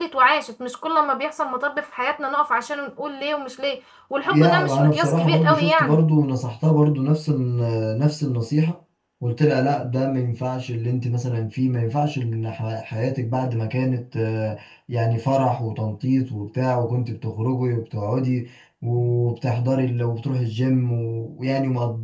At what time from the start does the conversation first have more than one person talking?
4.3 s

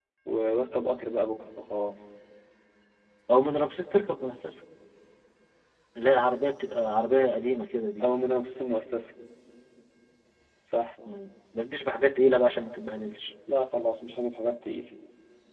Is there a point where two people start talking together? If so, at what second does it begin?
none

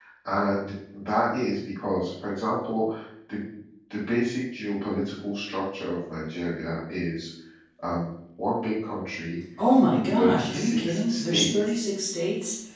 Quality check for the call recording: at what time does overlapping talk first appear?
10.2 s

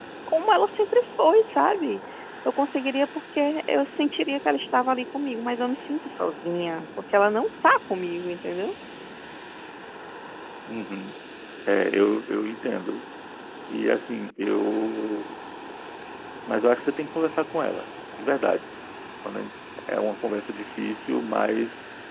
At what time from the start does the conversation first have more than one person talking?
none

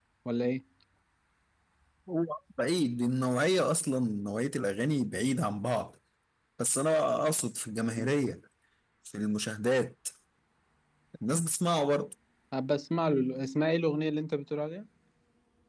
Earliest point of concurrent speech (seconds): none

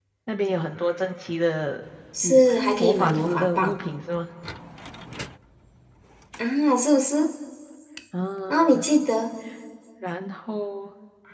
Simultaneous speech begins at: 2.2 s

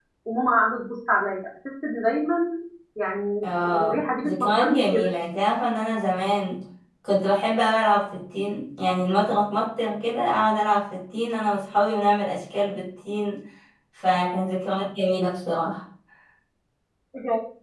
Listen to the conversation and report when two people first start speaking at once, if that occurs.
3.8 s

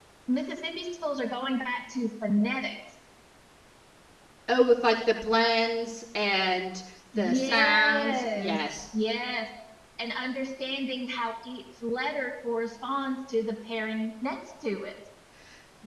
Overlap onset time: 7.1 s

